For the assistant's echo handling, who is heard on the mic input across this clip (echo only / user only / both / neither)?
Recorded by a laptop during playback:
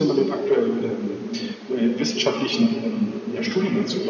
echo only